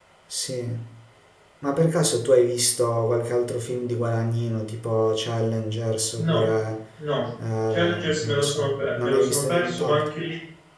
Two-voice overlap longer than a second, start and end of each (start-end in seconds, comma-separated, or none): 7.7-10.1